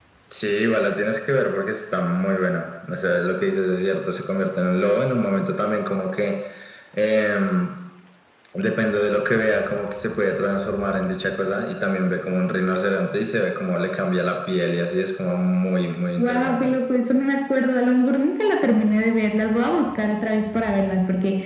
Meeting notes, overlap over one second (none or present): none